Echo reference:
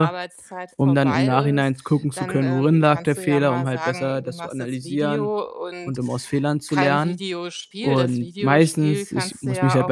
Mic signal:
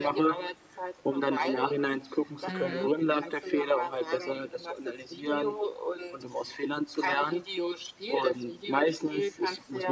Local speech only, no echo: Mhm.

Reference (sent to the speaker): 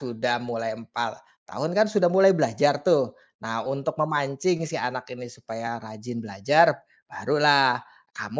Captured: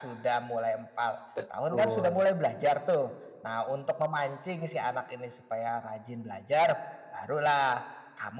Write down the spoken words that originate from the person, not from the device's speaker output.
Betul.

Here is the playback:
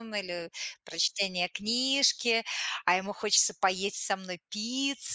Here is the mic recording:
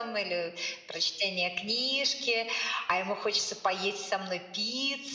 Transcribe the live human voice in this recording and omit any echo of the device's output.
none

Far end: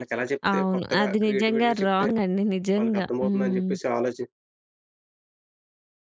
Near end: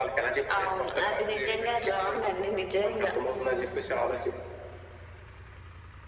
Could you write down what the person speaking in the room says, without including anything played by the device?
none

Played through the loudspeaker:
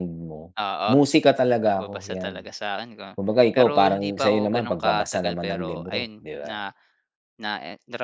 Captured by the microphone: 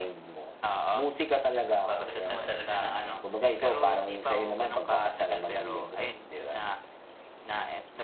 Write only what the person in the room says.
'pag gusto mo talaga ng ano medyo o

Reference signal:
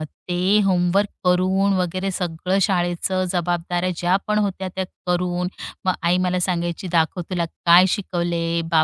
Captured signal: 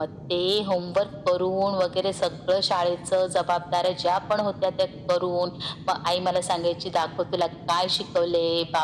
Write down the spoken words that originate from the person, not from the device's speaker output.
none

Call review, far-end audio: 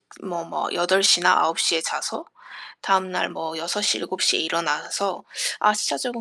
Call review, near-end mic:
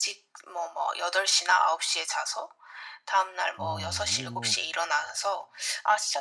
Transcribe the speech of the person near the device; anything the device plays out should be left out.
아 이게 뭐

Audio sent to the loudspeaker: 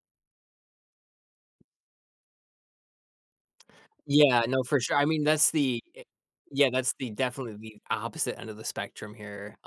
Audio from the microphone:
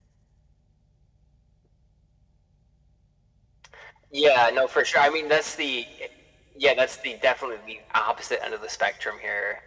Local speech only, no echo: none

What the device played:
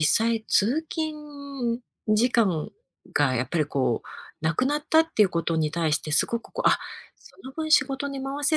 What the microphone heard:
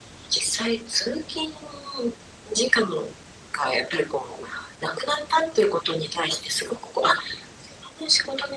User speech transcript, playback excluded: none

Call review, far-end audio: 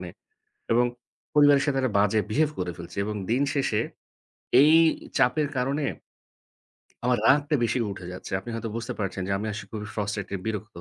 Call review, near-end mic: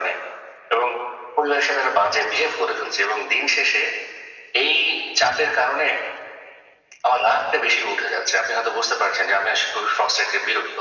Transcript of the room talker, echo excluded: none

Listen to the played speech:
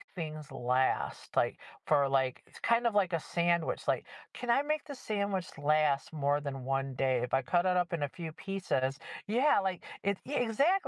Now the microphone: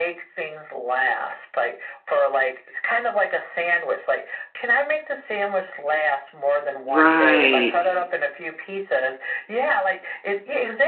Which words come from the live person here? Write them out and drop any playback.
Right.

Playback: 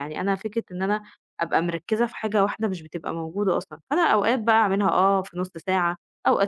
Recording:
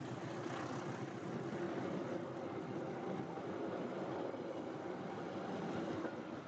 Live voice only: none

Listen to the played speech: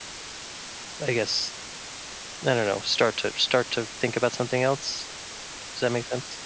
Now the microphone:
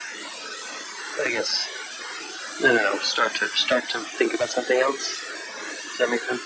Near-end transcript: none

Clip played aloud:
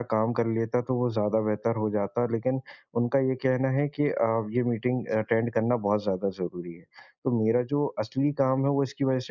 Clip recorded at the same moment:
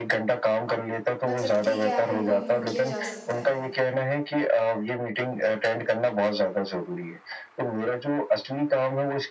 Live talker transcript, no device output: मतलब ठीक है, आप इनको इग्नोर किया जा सकता है?

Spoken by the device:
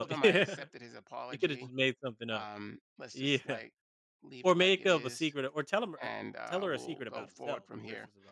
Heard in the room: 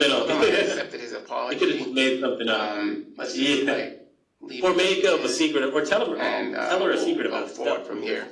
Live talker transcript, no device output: none

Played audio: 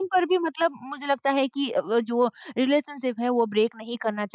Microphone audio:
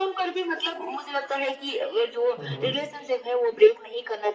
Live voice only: हुँ, हुँ।

